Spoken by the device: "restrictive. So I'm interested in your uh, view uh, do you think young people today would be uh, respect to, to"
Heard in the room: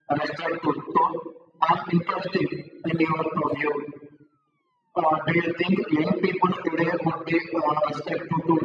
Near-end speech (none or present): none